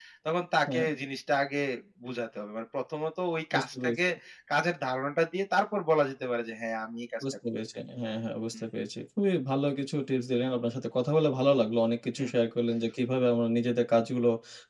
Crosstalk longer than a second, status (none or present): none